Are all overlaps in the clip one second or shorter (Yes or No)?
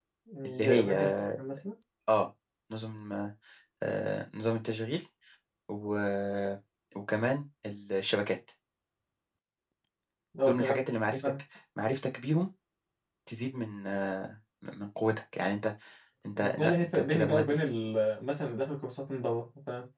No